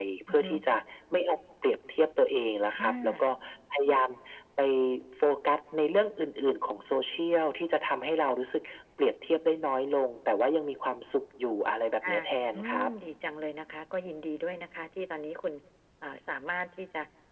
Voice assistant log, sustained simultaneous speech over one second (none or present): none